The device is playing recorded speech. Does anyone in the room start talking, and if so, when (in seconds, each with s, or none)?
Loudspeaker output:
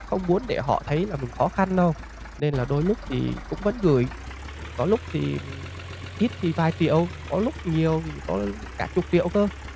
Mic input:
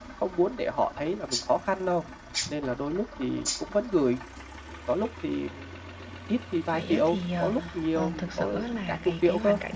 6.7 s